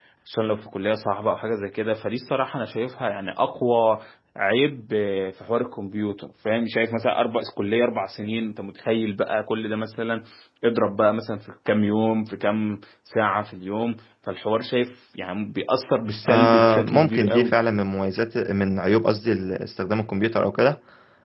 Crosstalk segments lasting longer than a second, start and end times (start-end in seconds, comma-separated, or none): 16.3-17.6